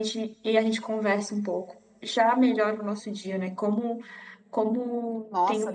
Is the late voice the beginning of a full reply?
Yes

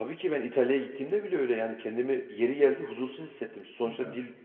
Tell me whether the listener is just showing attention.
Yes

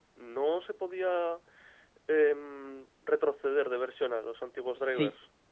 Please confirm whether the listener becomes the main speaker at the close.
Yes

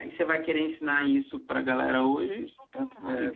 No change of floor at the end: No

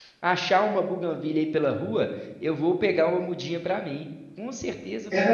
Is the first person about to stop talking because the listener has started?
Yes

